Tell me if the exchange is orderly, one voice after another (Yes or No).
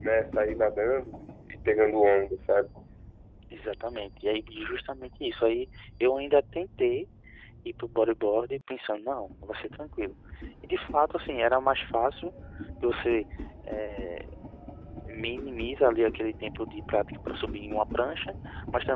Yes